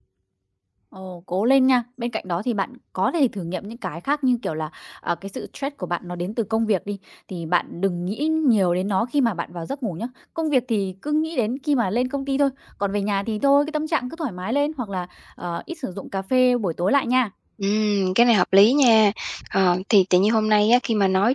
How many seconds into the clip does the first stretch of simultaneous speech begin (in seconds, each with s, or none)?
none